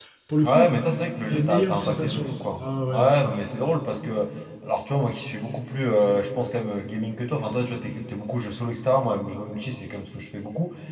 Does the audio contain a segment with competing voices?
Yes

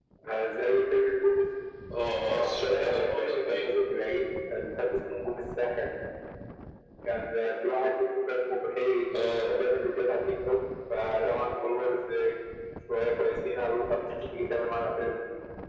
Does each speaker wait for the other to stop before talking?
No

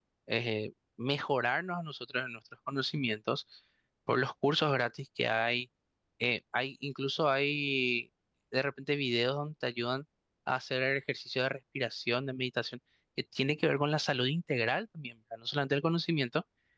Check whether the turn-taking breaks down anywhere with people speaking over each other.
No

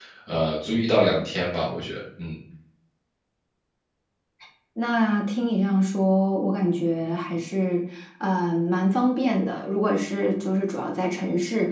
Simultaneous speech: No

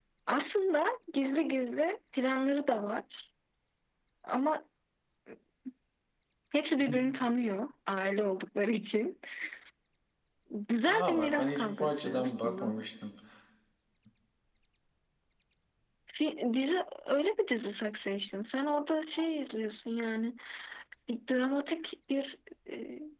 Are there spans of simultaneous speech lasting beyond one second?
Yes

